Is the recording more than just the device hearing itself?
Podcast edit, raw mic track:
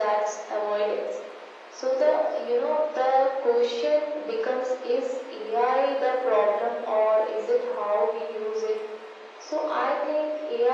No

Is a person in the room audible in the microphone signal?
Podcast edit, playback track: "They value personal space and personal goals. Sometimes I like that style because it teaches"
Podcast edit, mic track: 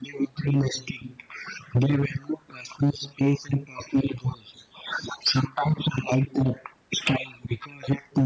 No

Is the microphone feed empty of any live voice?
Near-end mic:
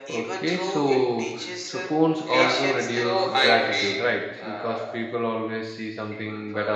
No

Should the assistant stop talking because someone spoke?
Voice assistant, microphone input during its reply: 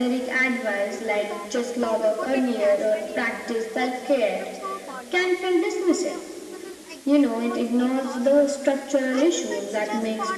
Yes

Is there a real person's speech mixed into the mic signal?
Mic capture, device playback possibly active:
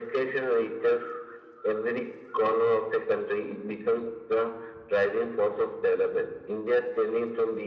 No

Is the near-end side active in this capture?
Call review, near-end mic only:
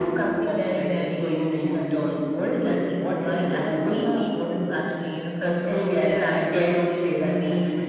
No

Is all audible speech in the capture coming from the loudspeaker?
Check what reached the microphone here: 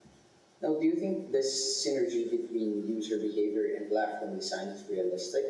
Yes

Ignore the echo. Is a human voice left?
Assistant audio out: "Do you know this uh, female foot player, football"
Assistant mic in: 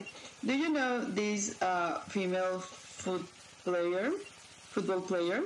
No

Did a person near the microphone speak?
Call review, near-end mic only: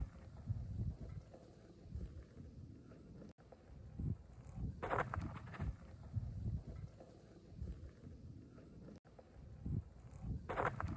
No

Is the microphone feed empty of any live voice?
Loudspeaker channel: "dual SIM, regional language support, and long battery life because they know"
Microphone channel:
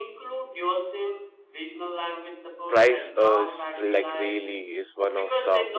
No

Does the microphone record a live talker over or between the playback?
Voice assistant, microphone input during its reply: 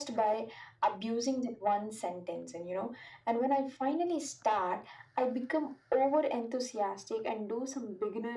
No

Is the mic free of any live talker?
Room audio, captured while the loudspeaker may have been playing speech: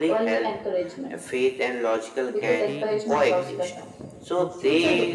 No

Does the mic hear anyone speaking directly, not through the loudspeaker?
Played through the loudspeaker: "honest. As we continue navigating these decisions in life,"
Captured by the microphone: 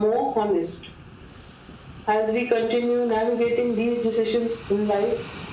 No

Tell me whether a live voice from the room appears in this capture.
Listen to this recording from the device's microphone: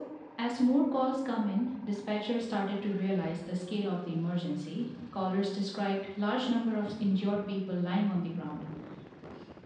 No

